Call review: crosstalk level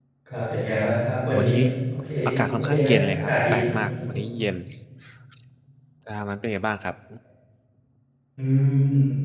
present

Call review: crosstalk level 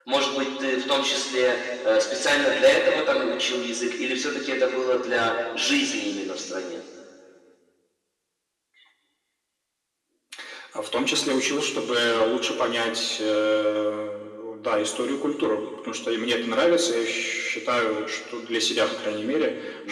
none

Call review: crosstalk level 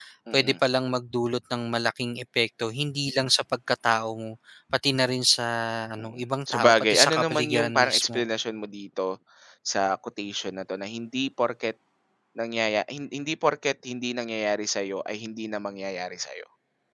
present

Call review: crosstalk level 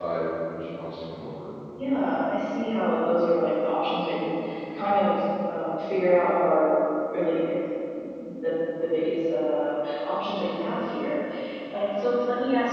none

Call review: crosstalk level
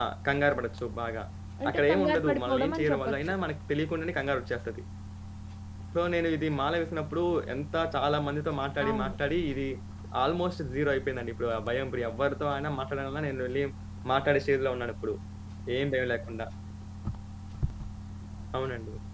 present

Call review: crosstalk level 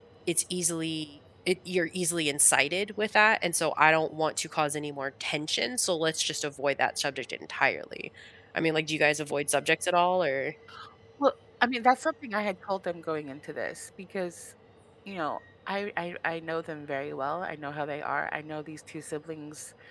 none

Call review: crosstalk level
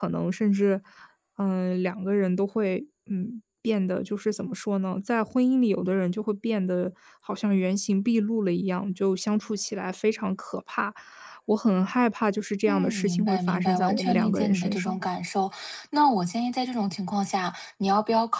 present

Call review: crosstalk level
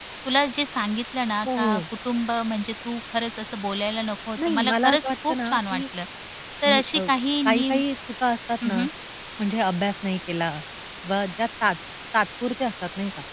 present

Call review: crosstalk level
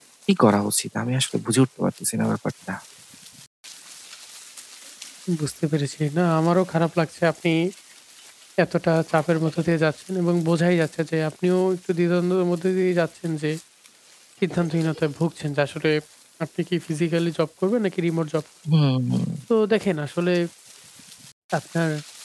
none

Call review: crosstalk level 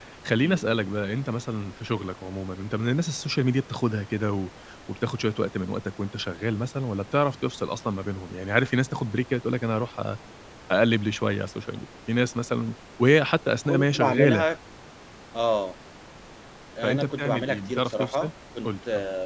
present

